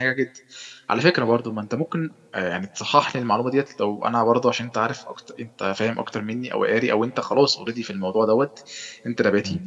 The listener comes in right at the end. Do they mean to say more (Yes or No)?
No